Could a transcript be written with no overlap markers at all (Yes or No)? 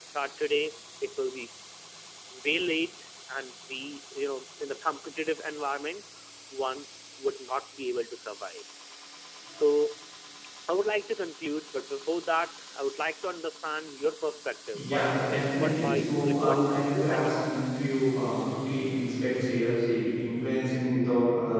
No